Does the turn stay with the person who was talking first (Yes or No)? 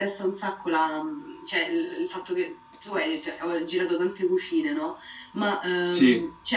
Yes